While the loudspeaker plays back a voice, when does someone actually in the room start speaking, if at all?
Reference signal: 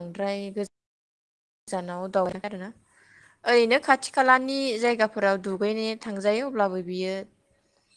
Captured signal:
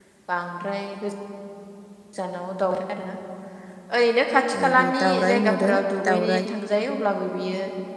4.5 s

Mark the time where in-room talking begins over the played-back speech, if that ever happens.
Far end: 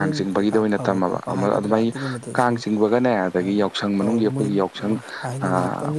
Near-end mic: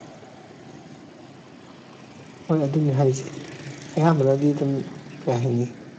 2.5 s

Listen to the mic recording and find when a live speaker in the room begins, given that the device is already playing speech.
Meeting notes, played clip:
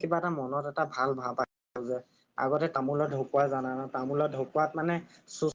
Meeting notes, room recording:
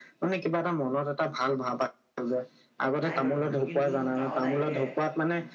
3.0 s

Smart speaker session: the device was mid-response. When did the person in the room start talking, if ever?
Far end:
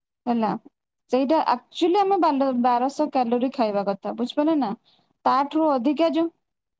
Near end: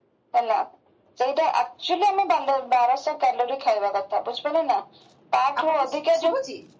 5.6 s

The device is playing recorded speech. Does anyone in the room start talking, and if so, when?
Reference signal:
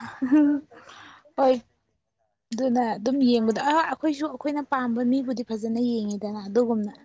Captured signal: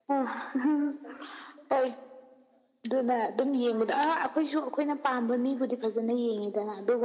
none

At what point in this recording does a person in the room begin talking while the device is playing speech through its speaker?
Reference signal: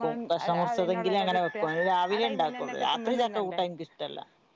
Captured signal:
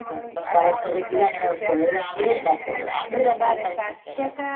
3.2 s

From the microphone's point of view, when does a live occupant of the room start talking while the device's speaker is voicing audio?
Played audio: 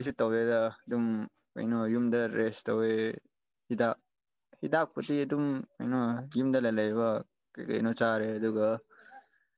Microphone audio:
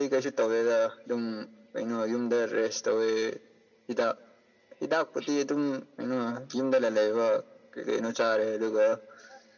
none

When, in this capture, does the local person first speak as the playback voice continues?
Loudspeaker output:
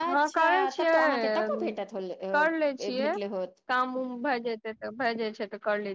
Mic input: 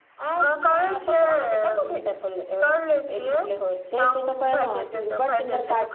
3.9 s

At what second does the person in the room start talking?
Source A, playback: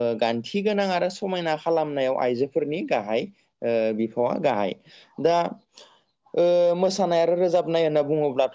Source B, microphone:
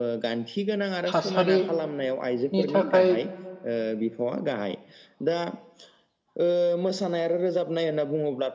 1.1 s

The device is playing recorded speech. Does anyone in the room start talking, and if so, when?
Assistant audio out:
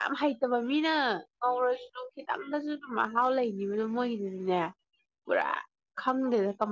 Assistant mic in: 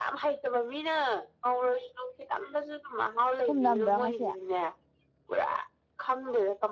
3.4 s

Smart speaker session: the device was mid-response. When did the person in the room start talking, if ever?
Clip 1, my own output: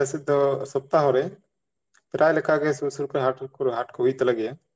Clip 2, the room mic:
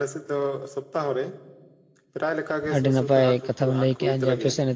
2.7 s

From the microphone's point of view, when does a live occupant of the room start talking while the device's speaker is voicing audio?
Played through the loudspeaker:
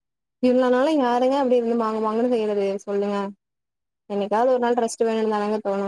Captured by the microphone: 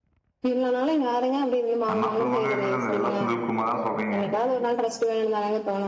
1.9 s

